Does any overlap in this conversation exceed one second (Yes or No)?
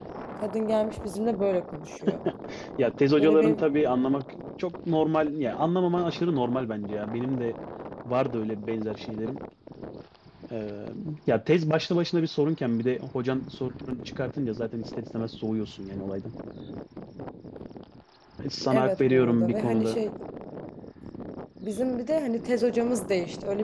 Yes